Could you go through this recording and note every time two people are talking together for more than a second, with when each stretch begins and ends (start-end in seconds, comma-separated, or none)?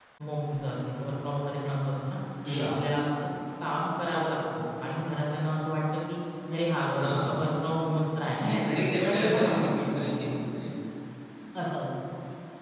8.5-10.2